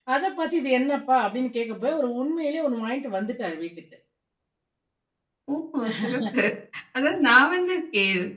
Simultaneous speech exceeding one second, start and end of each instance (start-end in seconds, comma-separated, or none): none